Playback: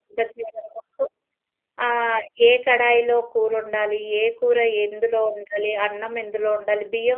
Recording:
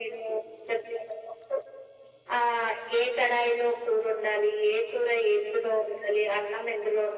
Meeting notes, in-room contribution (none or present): none